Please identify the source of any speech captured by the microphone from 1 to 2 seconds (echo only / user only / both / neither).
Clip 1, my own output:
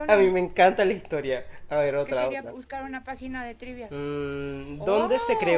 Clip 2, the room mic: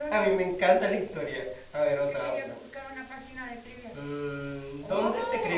echo only